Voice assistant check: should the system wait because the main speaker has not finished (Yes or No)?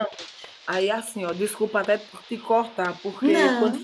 Yes